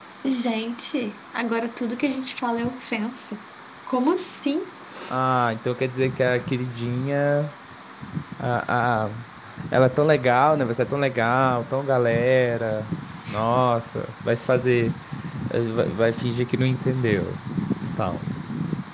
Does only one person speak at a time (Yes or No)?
Yes